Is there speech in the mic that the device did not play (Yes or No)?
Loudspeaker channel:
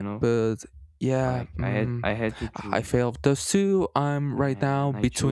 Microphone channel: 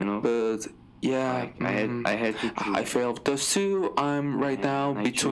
No